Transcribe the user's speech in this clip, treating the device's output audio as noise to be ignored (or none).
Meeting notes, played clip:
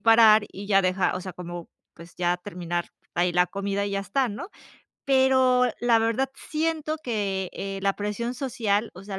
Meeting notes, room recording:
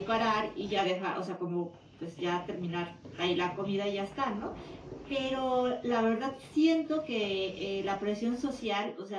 none